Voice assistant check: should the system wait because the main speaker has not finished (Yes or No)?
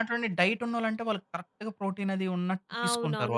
No